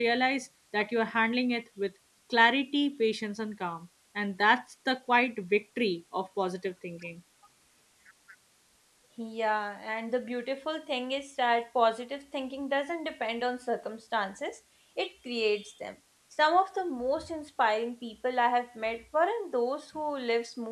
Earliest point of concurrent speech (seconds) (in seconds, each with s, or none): none